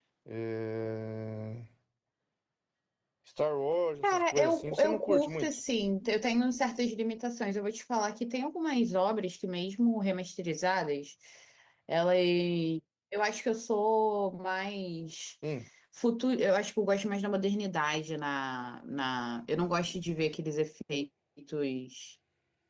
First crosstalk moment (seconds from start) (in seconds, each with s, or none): 4.0 s